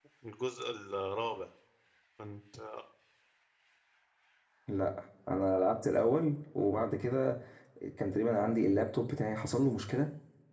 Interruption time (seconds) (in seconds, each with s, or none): none